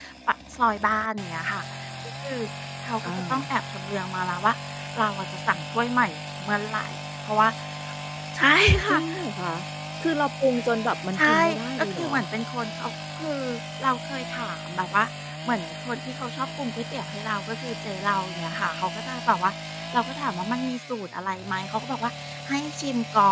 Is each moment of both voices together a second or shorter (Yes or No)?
Yes